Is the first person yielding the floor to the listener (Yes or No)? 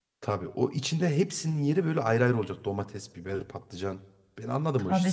Yes